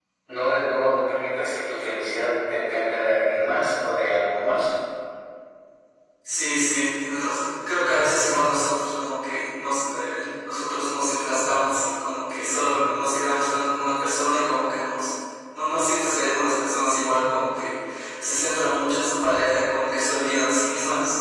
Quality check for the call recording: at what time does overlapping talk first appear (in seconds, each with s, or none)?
none